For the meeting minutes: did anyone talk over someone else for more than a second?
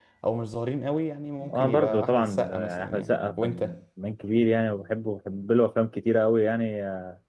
Yes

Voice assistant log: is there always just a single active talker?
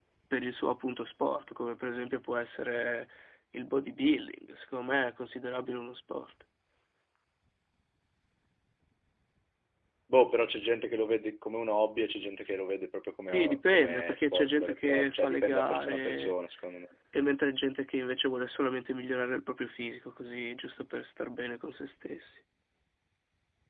No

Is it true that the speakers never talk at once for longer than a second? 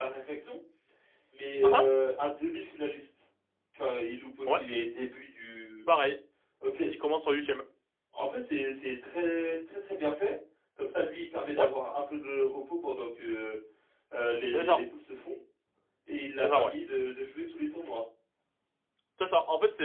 Yes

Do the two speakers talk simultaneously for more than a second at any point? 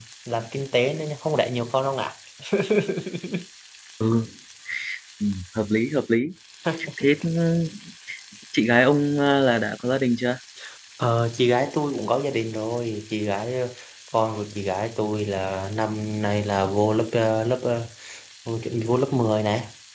No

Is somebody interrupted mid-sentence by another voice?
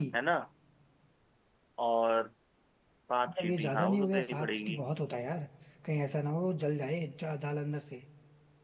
Yes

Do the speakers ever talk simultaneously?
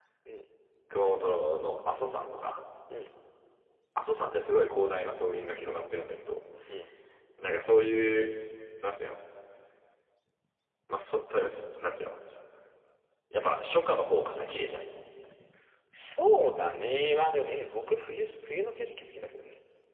No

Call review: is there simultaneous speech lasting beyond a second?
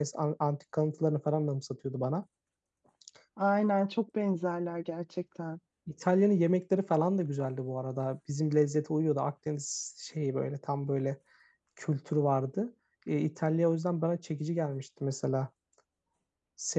No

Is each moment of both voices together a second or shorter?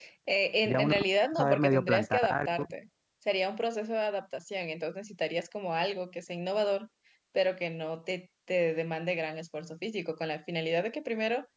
No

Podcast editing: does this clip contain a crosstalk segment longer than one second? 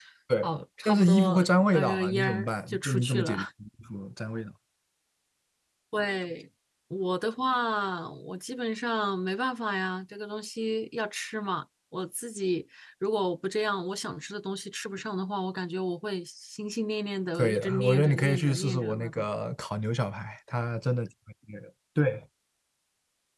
Yes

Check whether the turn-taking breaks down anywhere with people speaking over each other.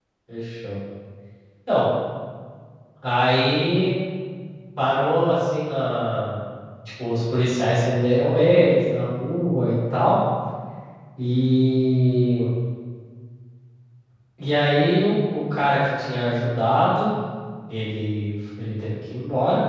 No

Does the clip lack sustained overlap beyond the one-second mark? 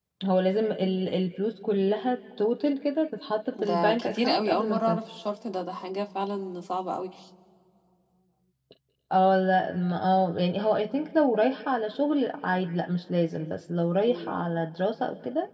No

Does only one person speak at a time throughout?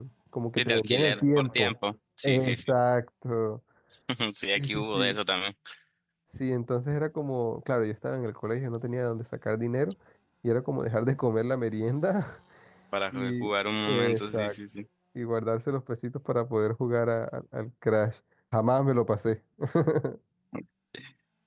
No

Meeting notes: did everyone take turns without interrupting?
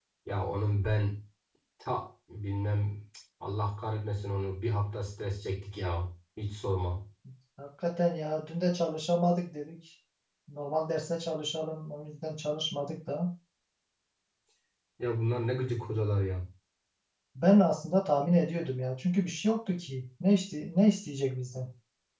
Yes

